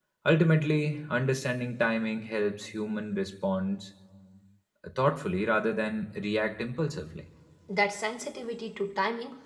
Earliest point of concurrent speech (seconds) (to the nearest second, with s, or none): none